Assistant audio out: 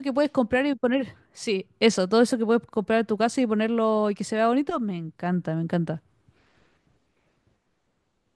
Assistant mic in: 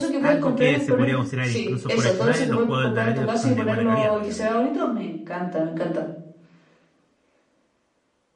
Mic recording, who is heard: both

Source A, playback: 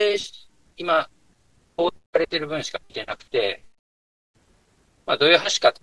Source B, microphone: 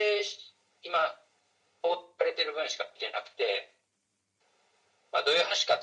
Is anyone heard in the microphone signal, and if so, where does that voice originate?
echo only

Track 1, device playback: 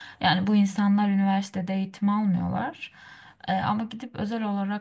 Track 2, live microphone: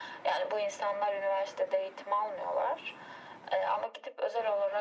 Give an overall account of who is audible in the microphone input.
echo only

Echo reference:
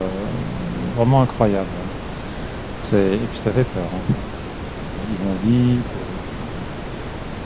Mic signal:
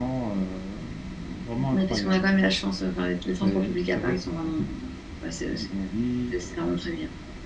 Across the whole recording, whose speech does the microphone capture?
both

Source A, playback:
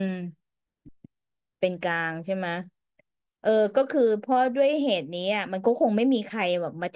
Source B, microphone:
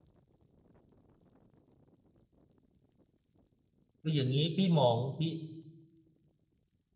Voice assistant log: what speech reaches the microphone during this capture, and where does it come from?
user only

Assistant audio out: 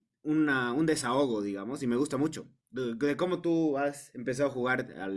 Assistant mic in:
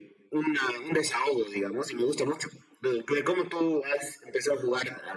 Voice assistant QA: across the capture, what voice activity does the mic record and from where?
echo only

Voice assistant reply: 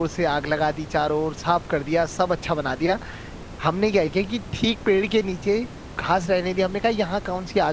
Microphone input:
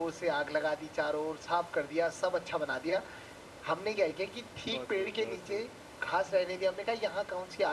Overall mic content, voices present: both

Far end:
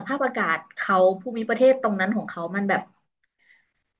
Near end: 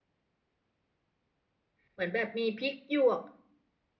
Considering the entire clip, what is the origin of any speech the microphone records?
user only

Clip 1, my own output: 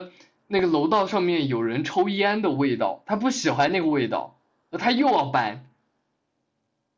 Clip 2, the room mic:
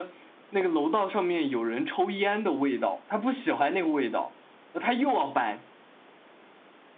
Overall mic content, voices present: echo only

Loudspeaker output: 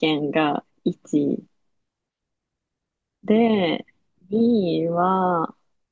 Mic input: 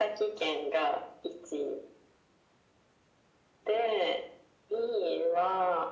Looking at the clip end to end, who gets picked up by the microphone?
echo only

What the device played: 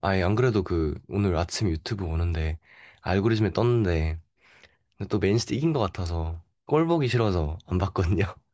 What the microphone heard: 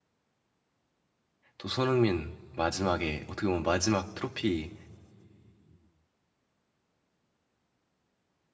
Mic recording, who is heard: user only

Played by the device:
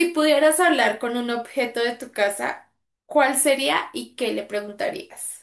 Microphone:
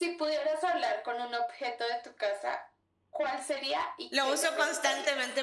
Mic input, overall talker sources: both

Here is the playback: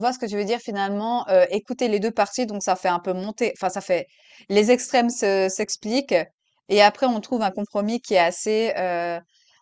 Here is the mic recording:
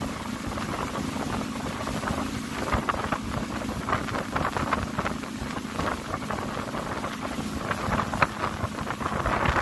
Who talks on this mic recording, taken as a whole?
neither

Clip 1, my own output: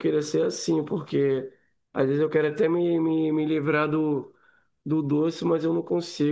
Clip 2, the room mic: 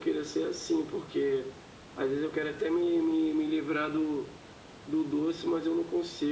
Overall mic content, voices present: echo only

